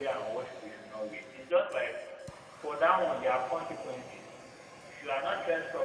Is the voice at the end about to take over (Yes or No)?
No